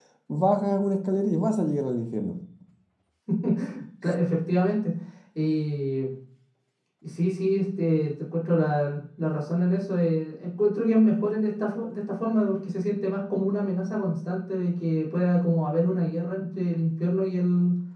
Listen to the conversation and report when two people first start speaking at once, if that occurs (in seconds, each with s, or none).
none